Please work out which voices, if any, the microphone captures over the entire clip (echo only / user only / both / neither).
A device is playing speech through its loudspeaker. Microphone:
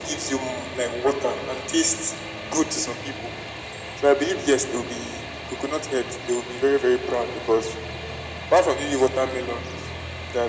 echo only